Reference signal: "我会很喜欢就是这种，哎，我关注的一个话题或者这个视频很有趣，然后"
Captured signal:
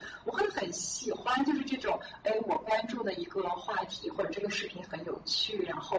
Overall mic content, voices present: echo only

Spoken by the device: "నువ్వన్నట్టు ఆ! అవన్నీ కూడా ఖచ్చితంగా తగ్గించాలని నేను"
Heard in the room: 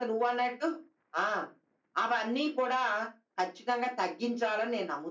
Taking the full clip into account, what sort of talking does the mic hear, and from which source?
echo only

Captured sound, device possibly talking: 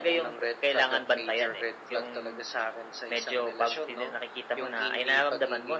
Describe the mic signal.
echo only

